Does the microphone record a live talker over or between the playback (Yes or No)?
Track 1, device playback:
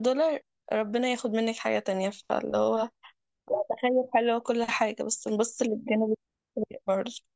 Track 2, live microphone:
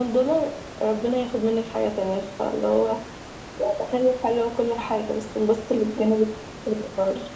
No